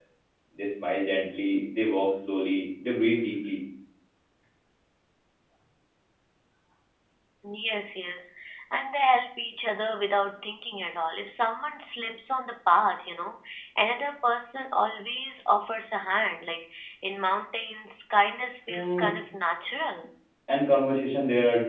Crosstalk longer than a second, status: none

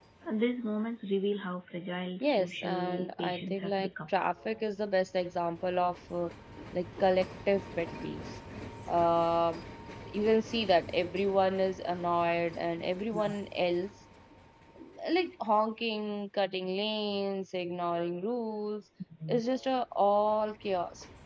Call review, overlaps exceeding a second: present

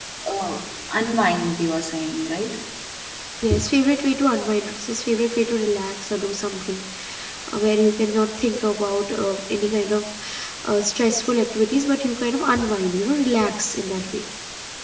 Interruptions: none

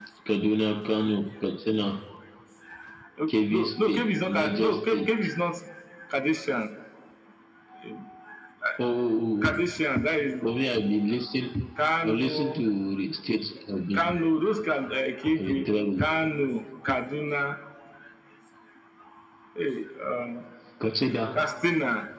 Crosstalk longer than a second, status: present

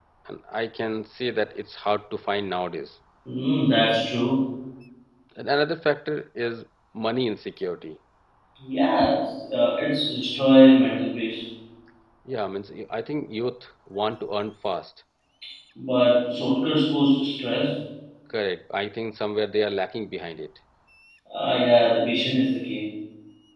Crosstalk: none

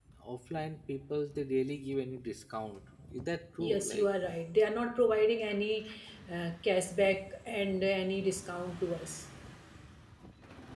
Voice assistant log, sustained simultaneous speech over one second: none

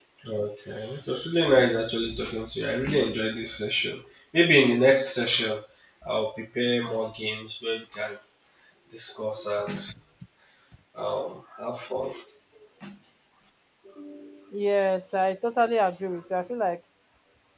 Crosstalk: none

